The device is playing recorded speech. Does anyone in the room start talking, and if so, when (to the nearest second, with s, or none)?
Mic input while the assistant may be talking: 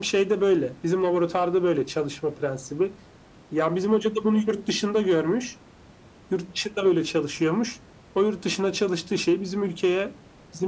none